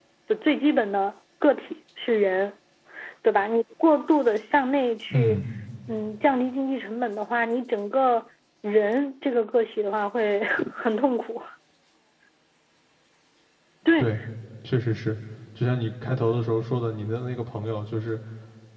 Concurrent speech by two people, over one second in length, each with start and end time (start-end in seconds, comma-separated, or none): none